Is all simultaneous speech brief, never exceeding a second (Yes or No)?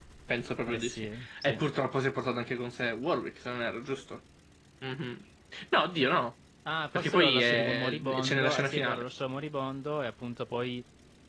No